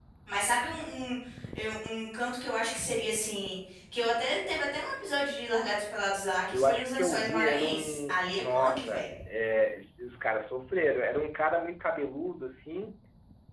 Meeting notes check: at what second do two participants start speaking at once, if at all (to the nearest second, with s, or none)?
7 s